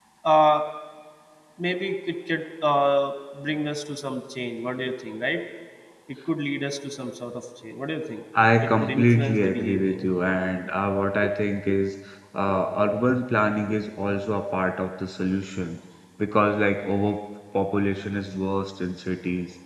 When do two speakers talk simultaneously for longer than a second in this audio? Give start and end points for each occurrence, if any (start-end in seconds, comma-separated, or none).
8.6-10.0